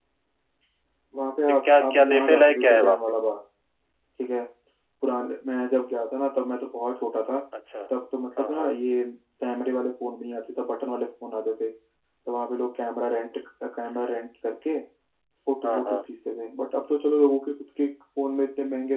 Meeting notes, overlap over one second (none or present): present